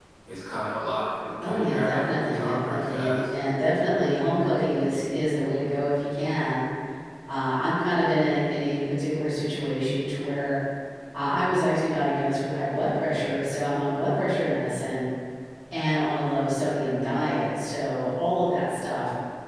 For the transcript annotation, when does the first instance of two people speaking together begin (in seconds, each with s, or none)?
1.4 s